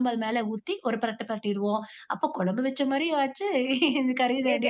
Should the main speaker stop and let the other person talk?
Yes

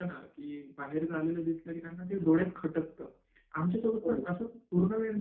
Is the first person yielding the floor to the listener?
No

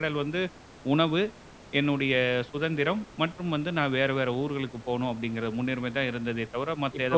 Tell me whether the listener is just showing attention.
No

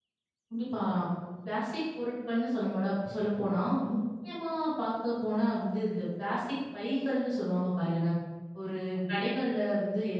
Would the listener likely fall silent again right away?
Yes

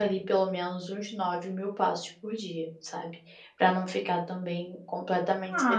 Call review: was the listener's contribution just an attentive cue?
No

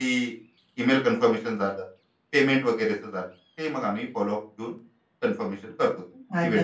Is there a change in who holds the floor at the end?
Yes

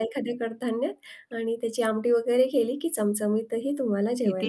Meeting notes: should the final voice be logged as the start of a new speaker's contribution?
Yes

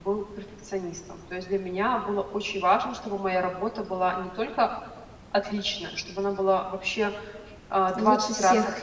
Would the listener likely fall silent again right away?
Yes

